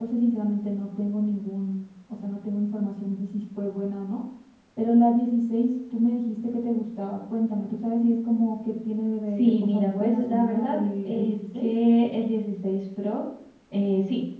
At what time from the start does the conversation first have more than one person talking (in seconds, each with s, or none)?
9.3 s